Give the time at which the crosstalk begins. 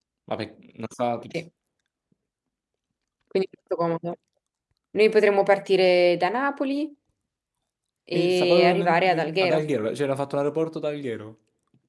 8.1 s

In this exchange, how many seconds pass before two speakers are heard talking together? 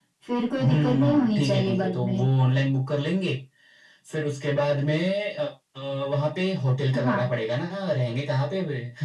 0.6 s

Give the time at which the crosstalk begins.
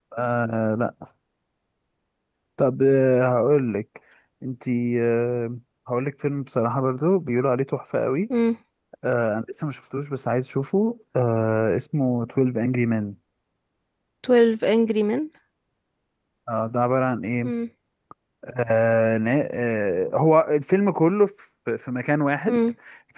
none

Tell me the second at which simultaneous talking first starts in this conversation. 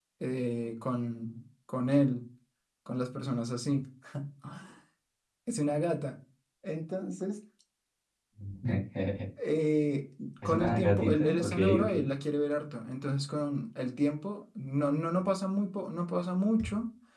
10.4 s

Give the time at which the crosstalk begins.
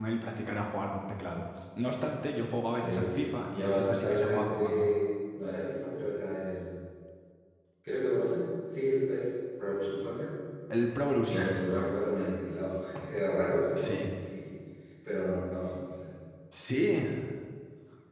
2.8 s

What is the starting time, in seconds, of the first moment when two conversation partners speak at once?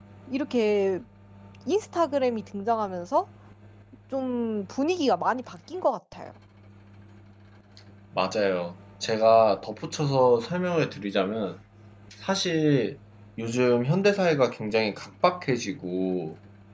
none

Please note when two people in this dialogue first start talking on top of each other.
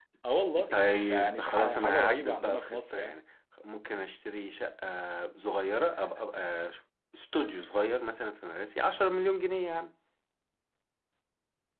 0.7 s

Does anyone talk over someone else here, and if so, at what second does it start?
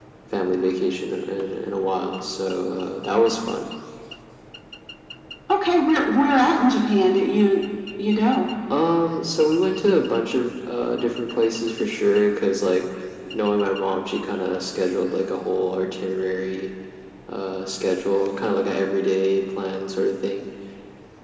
none

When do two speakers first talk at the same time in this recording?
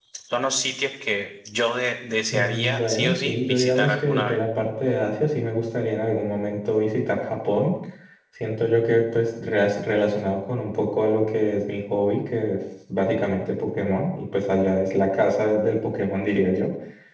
2.3 s

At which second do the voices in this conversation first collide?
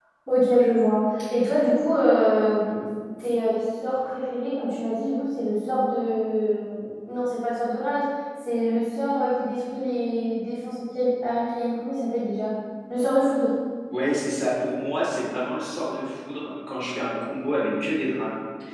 none

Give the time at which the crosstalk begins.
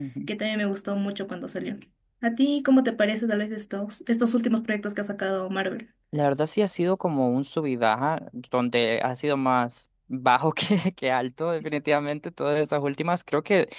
none

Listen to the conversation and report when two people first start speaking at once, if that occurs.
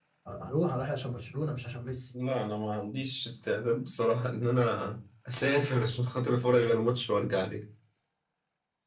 none

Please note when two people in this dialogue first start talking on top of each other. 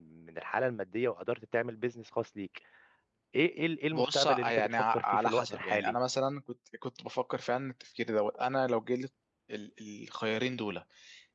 3.9 s

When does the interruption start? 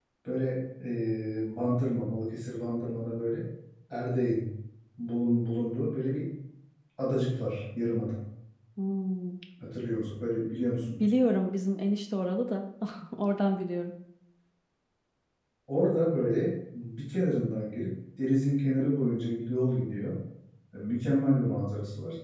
none

